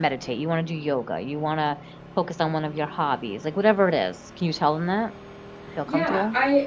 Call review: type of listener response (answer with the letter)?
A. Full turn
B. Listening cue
A